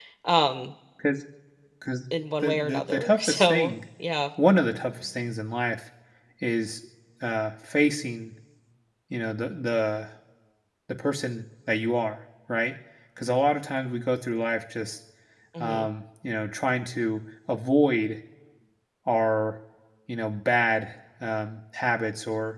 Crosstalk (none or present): present